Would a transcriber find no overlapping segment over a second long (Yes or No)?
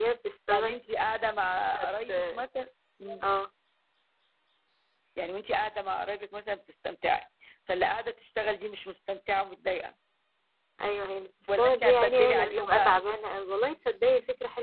No